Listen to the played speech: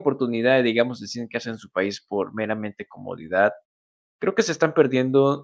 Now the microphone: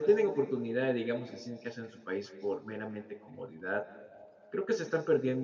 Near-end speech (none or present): none